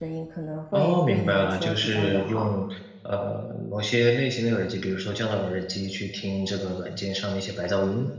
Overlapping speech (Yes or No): Yes